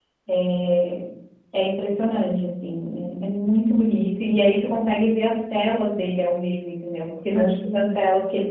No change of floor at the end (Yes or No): Yes